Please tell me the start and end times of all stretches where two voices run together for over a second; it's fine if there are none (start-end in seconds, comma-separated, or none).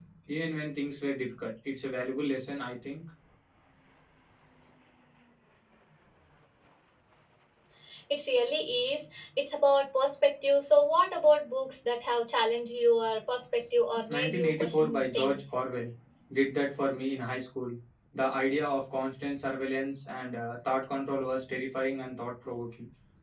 14.1-15.4